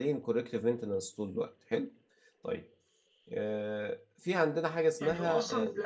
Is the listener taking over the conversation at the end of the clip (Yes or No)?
Yes